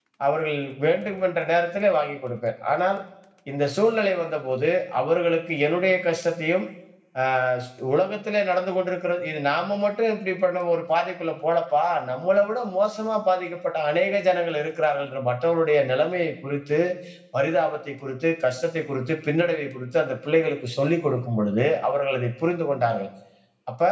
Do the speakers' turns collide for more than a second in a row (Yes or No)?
No